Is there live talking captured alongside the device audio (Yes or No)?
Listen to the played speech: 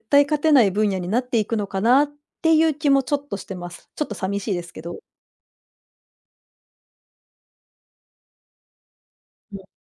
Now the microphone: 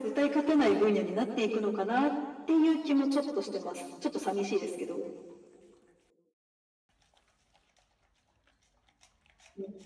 No